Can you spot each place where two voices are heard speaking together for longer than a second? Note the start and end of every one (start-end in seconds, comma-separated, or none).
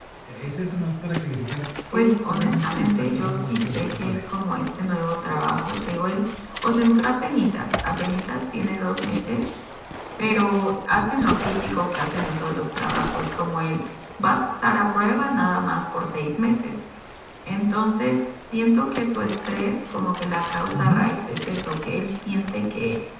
1.9-4.4